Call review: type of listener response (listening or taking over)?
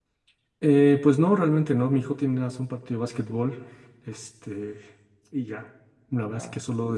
listening